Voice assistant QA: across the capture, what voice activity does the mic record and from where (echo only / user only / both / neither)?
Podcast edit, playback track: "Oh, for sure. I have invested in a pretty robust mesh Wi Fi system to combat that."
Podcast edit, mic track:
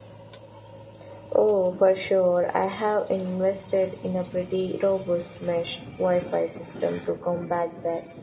echo only